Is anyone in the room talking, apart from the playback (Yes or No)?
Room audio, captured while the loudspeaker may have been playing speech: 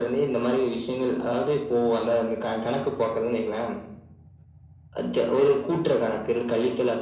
No